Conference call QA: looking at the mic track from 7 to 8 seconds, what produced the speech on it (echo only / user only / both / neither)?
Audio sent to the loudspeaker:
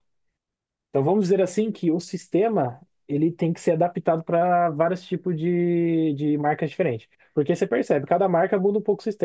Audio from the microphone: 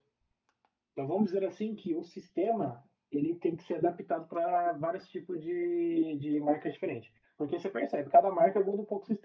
echo only